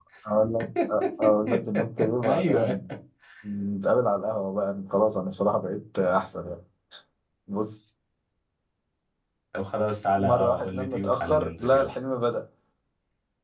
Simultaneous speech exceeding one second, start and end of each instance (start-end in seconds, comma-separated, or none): 10.3-11.9